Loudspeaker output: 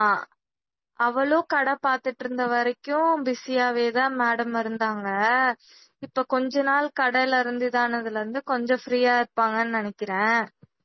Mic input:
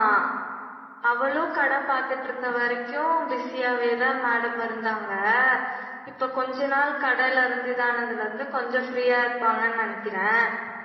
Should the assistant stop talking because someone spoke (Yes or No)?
No